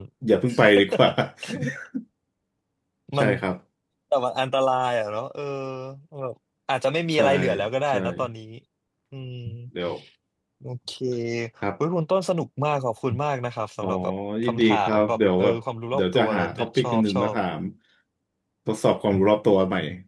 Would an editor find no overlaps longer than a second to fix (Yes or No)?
No